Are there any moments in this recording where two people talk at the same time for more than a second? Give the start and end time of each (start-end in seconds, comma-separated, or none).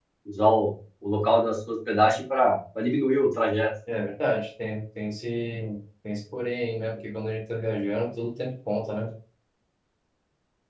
none